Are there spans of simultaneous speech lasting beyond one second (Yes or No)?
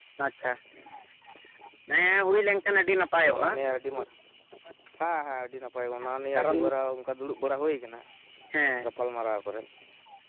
No